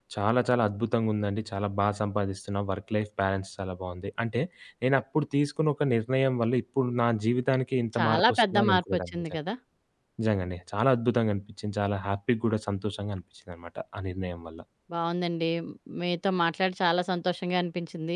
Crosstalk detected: Yes, from 7.9 s

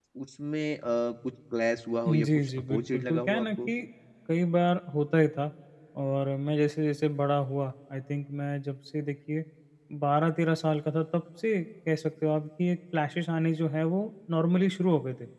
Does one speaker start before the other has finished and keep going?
Yes, from 2.1 s

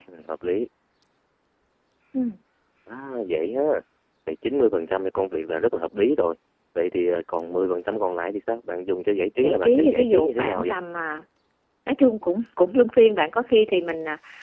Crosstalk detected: Yes, from 9.4 s

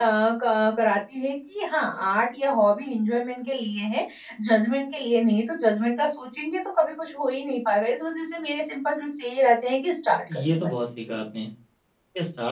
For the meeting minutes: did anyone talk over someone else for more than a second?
No

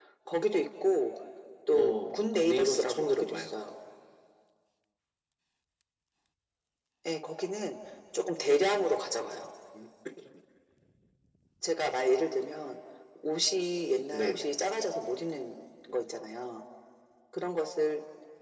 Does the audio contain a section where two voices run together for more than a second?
Yes, from 1.7 s

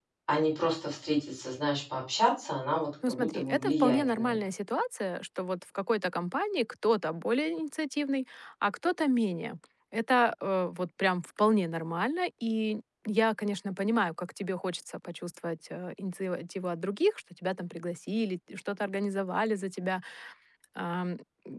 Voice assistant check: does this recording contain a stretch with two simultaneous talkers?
Yes, from 3.0 s

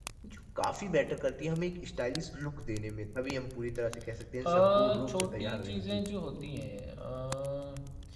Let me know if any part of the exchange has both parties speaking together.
Yes, from 4.4 s

